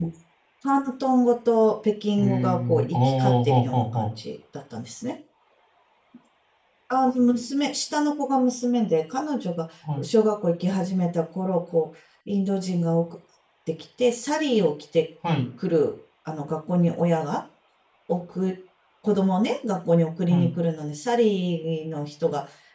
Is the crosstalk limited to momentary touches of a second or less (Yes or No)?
No